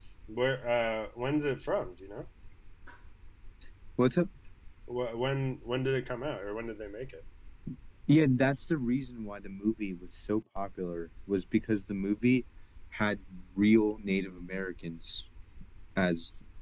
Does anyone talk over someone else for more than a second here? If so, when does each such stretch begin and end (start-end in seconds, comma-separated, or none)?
none